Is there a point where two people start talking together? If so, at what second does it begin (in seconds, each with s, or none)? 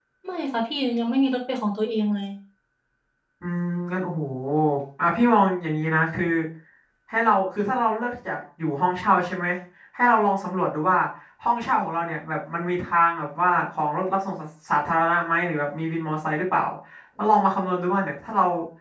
none